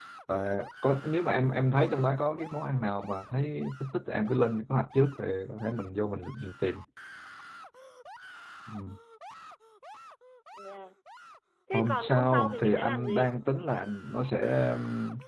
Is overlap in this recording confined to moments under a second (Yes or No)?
No